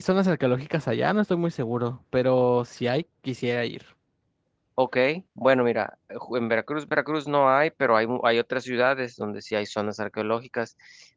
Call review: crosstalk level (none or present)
none